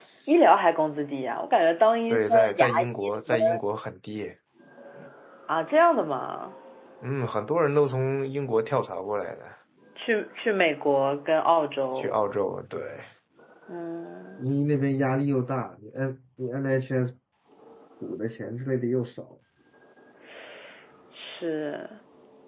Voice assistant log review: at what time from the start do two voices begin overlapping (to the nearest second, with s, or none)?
2 s